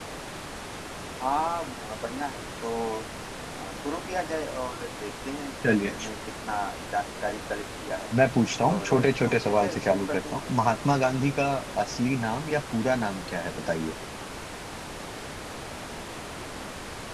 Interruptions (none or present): present